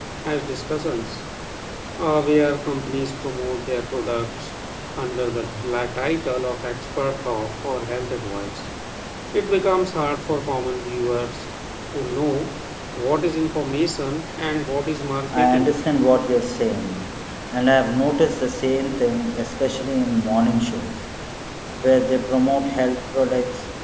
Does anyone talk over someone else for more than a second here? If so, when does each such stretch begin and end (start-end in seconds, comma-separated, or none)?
none